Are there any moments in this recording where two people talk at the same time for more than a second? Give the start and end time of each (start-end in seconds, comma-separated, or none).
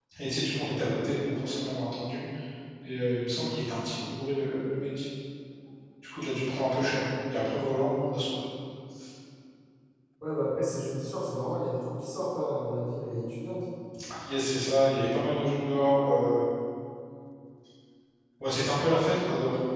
none